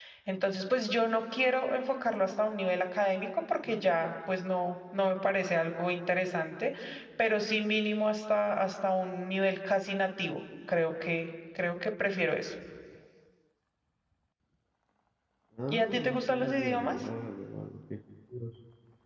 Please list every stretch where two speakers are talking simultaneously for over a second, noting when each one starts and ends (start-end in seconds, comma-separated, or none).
15.7-17.1